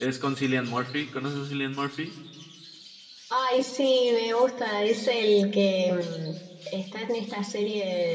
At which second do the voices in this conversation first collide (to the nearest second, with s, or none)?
none